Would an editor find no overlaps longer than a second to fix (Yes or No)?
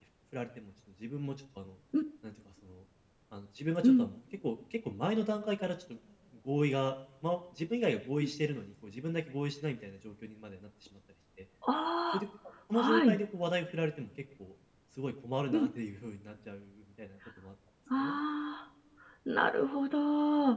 Yes